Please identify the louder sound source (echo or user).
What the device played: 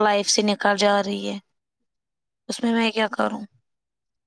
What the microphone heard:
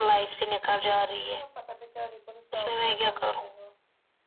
echo